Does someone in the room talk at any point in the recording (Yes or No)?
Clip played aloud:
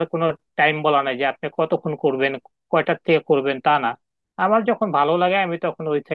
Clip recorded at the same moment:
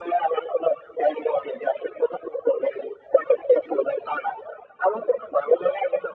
No